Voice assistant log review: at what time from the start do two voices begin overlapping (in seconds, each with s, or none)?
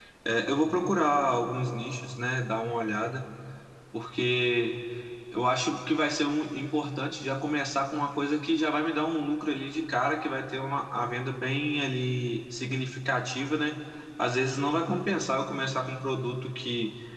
none